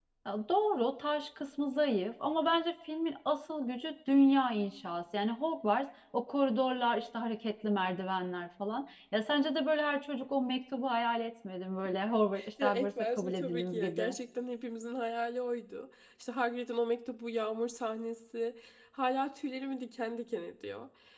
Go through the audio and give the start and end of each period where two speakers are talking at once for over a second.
12.6-14.1

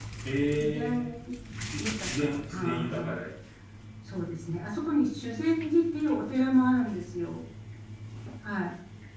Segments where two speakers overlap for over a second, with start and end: 1.8-3.3

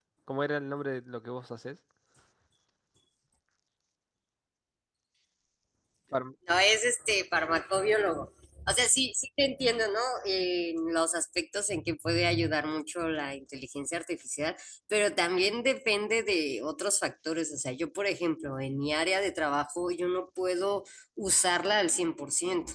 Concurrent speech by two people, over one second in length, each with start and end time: none

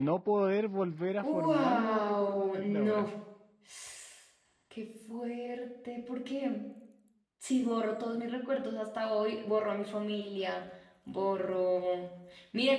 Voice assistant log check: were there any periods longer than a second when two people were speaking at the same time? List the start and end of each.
1.2-3.1

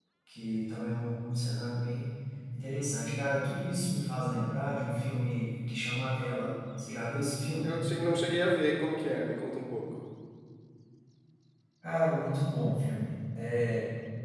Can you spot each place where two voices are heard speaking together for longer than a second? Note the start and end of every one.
none

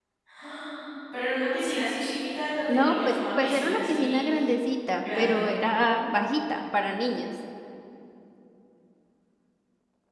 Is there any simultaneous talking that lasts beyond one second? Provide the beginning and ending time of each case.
2.7-4.3

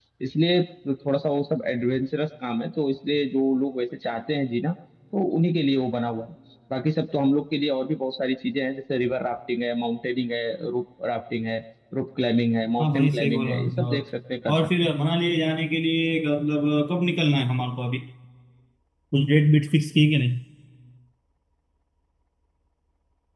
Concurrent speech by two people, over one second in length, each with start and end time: 12.8-14.0

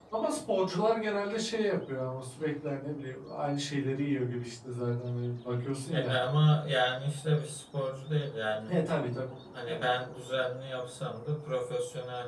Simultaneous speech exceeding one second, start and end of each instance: none

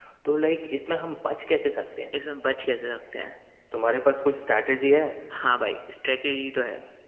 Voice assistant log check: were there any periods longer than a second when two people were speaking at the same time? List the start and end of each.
none

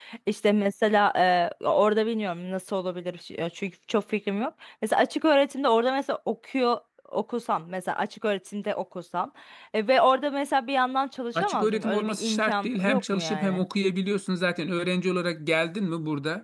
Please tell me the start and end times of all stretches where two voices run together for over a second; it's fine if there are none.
11.4-13.6

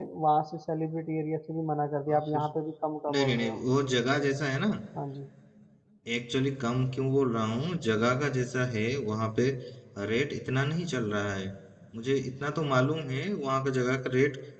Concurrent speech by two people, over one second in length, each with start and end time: none

